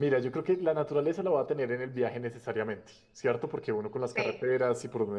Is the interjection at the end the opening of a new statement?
No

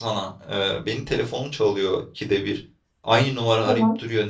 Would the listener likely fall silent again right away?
Yes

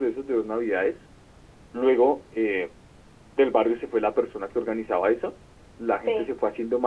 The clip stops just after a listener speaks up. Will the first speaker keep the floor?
Yes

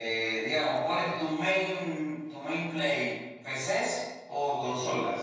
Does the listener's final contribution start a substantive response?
Yes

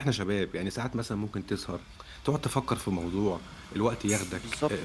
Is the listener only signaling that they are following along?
No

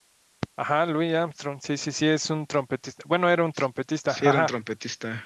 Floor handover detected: Yes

